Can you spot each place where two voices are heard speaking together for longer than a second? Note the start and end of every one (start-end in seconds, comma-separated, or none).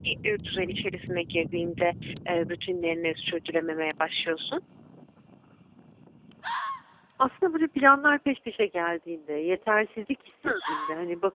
none